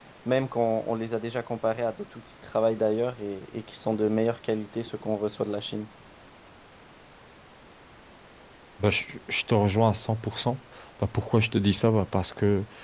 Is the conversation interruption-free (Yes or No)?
Yes